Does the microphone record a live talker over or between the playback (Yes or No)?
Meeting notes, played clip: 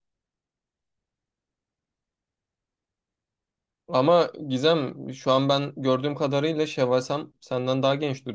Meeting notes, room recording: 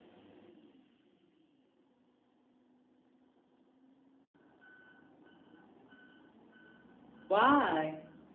Yes